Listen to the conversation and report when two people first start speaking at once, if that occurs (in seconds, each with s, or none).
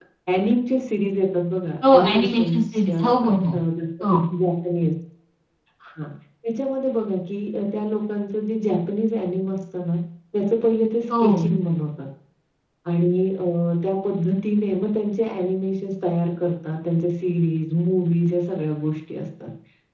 1.9 s